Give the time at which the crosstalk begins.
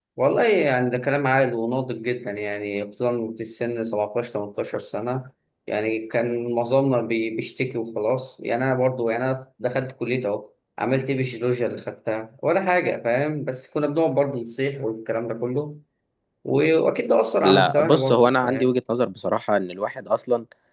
17.4 s

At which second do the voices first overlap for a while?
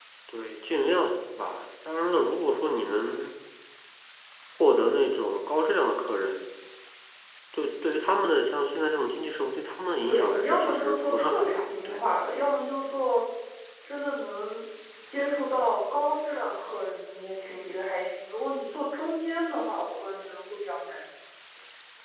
10.1 s

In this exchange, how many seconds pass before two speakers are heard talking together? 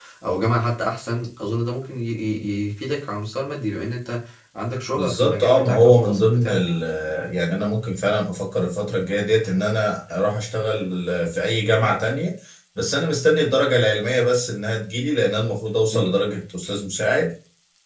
5.0 s

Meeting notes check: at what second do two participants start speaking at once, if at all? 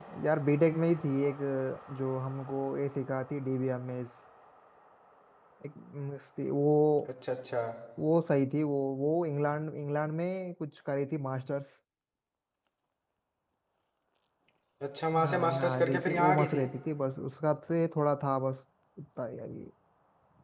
15.2 s

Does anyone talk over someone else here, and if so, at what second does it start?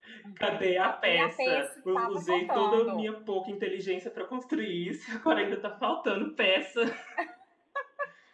0.8 s

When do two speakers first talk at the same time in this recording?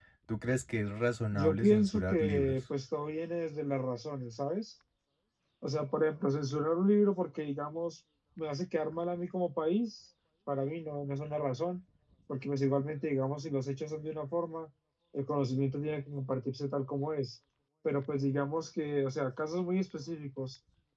1.3 s

